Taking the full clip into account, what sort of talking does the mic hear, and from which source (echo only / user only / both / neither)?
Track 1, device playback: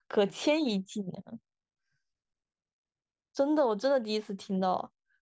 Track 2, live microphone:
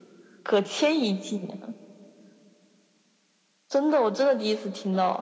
echo only